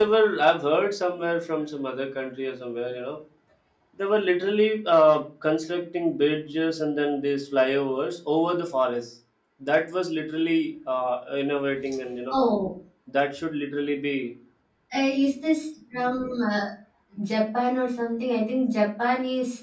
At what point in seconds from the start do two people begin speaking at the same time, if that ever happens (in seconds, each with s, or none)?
none